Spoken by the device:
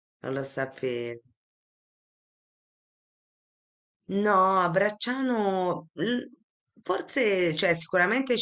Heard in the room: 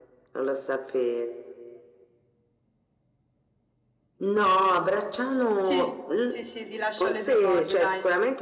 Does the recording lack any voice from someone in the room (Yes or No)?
No